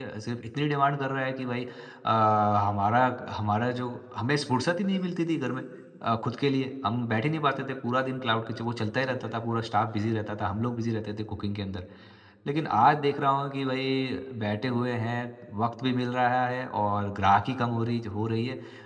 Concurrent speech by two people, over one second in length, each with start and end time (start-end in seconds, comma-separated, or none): none